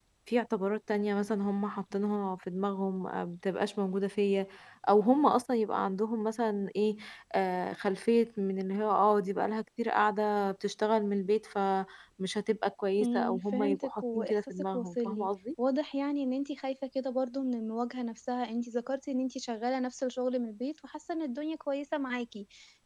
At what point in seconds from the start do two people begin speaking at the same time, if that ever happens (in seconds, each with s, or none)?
13.0 s